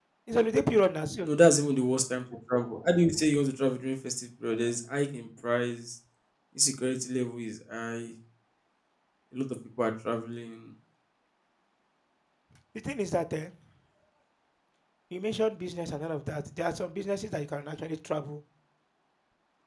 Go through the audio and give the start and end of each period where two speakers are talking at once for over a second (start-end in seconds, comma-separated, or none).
none